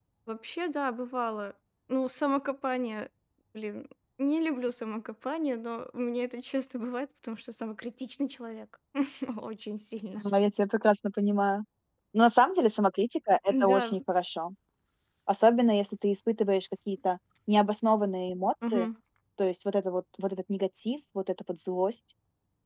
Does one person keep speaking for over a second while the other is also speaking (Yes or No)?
No